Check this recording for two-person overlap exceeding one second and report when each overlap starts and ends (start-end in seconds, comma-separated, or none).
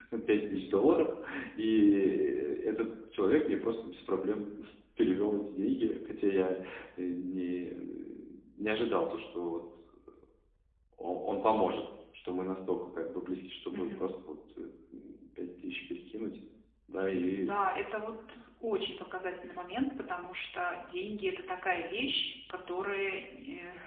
none